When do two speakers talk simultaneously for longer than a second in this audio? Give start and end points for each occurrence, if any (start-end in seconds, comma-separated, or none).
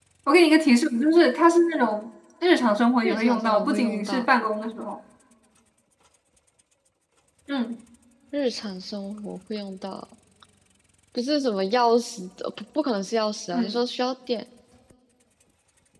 3.0-4.3